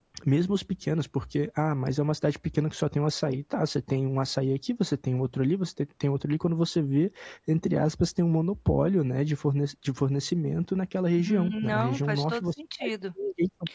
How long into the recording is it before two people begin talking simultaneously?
11 s

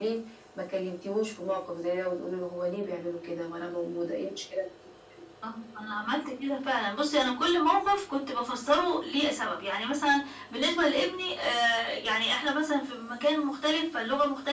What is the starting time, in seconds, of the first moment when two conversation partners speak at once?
none

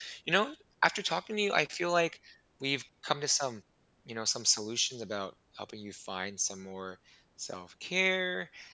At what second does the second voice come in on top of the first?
none

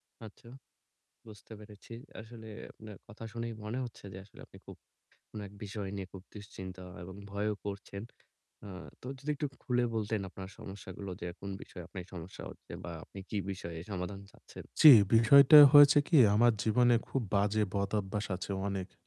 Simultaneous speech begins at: none

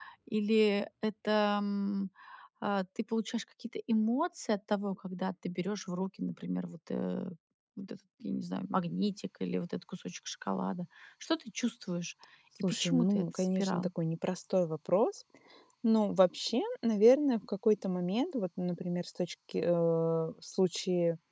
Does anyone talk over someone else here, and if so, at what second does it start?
13 s

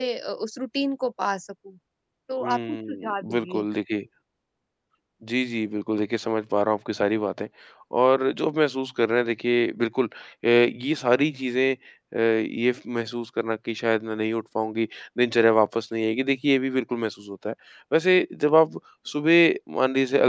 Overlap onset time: 2 s

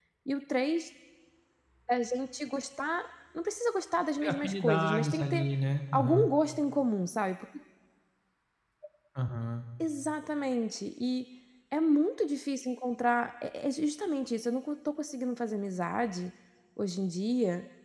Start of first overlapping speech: 4 s

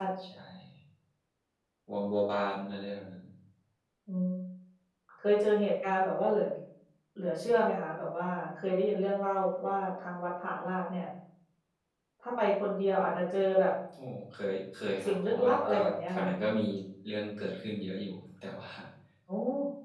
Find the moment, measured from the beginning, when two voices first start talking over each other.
15 s

